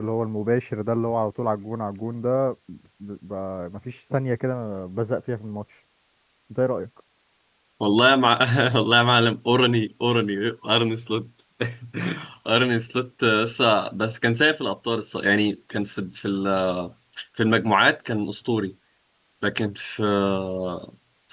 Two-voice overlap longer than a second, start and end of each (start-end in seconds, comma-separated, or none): none